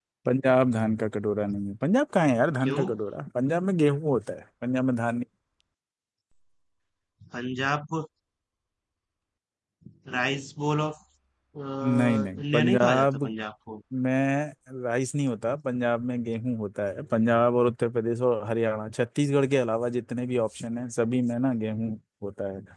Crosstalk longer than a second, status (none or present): present